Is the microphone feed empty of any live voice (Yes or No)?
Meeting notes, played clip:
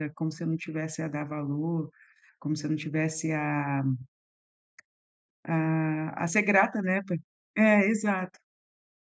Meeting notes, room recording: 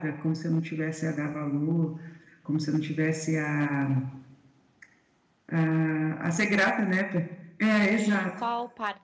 No